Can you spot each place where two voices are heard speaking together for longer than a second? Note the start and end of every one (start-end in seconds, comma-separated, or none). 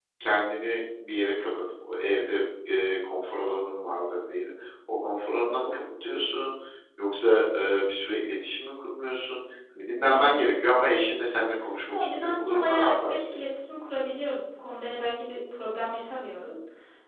11.9-13.2